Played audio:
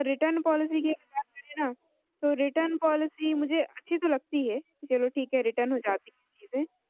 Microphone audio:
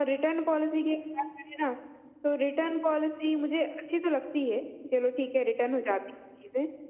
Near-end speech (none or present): none